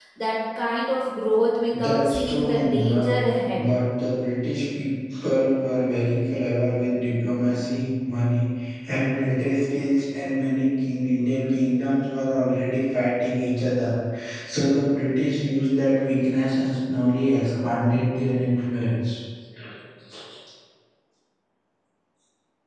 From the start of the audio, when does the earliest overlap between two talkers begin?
1.7 s

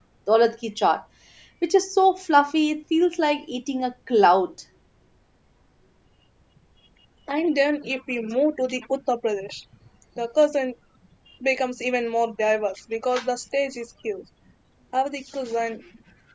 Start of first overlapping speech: none

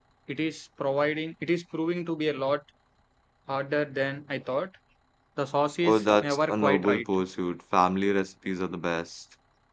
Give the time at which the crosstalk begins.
5.8 s

